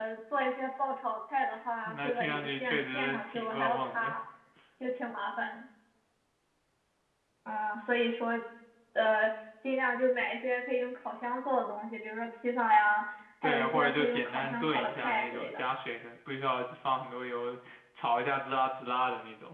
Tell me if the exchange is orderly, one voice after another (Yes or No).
No